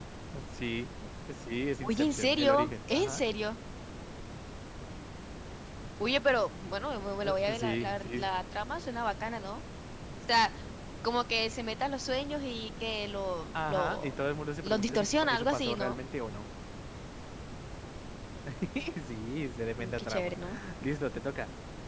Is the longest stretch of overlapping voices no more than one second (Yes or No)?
No